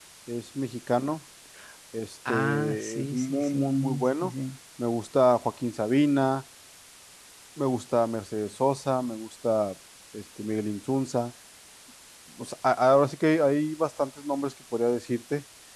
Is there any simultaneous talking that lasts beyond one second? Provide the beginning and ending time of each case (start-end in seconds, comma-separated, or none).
2.3-4.3